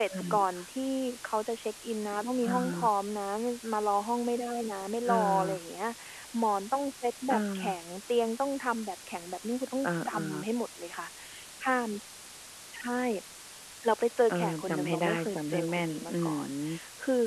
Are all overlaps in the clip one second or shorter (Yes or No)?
No